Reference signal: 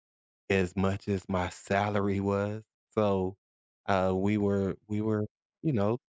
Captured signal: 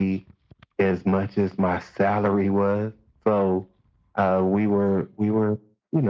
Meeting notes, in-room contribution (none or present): none